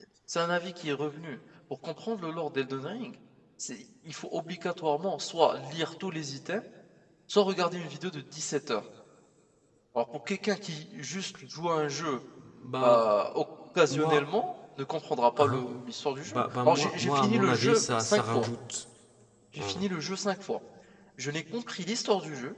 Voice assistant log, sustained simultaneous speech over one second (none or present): present